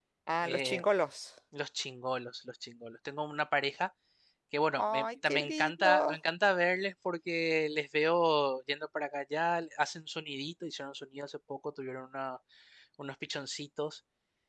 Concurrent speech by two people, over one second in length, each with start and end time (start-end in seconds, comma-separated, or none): 4.8-6.2